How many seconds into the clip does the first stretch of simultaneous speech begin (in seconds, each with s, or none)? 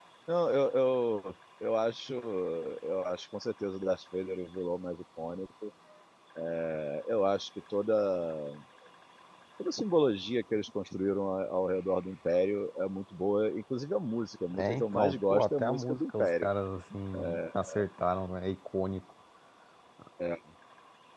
14.6 s